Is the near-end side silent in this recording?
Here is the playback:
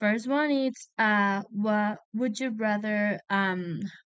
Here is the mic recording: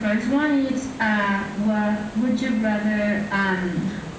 Yes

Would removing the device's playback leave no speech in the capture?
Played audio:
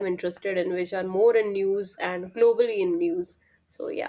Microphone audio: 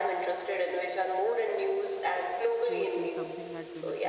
No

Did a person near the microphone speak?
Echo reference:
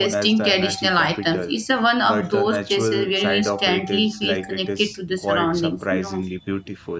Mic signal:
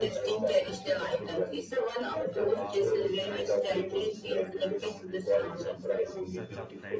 Yes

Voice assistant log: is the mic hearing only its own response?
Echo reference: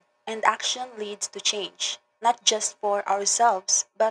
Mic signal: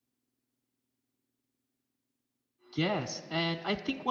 No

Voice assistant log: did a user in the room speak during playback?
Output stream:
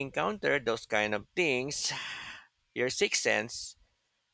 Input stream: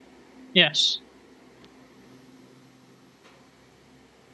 Yes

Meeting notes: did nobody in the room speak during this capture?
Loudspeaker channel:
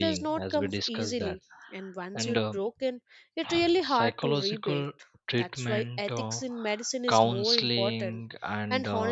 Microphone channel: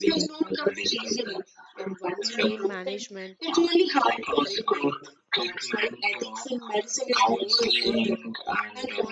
No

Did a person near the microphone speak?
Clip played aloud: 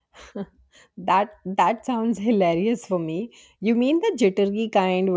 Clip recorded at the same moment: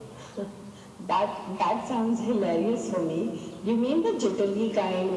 No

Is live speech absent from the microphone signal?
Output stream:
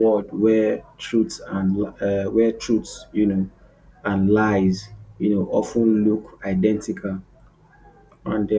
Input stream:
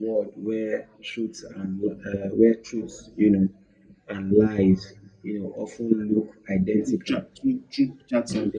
No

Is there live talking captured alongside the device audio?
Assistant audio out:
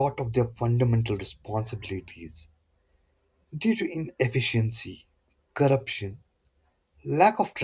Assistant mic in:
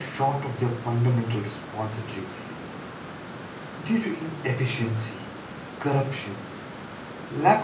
No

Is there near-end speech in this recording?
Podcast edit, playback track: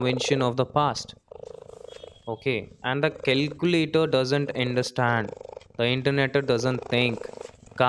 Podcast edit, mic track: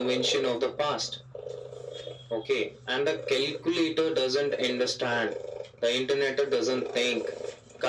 No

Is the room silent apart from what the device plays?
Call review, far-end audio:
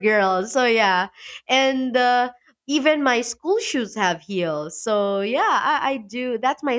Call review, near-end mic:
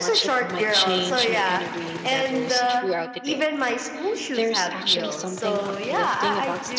No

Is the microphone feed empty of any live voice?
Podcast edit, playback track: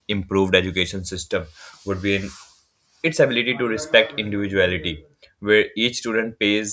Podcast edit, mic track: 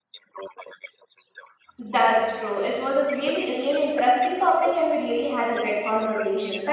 No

